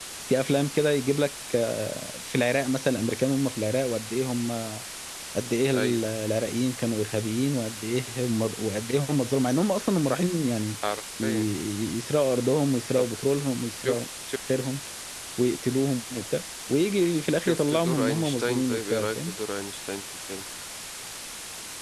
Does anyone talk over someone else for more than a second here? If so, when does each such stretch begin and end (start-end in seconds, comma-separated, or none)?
17.4-19.3